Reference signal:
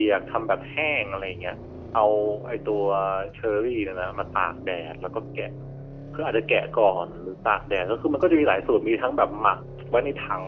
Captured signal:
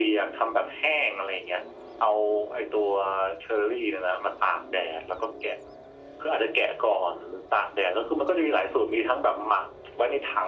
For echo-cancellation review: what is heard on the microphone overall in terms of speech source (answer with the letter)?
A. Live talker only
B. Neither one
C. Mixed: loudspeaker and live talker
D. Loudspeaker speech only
D